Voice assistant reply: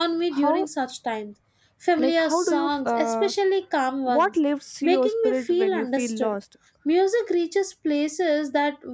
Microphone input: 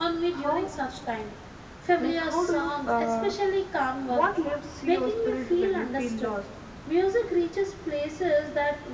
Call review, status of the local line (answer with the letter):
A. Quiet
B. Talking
A